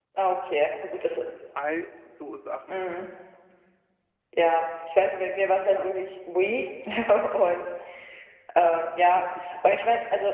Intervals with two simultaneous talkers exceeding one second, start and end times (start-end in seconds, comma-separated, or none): none